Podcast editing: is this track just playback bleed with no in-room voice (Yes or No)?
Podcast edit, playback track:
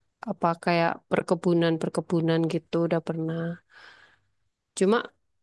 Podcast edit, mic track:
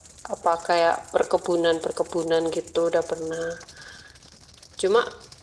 Yes